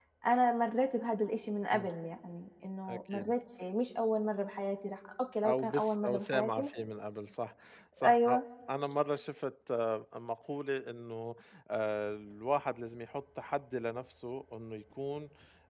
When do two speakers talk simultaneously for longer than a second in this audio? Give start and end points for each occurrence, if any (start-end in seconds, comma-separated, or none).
5.5-6.7